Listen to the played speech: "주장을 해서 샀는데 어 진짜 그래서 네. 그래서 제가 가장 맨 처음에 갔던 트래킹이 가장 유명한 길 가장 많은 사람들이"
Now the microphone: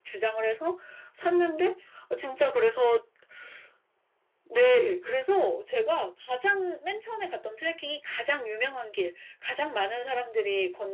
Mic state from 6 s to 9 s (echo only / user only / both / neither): echo only